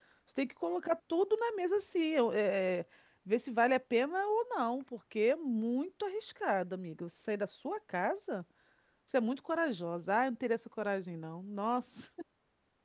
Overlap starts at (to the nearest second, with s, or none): none